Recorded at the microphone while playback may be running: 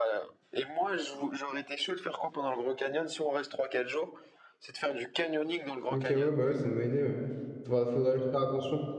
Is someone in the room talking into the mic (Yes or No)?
Yes